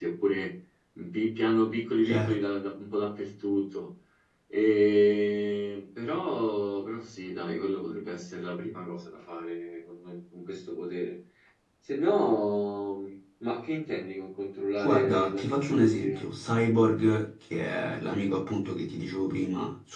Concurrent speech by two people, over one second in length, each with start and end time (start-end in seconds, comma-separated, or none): 14.8-16.2